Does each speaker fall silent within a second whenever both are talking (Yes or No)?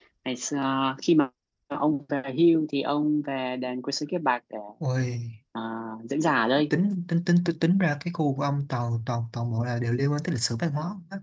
Yes